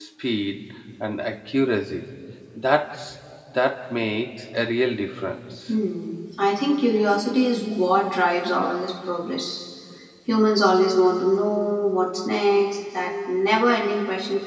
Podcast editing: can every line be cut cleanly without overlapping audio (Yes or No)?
Yes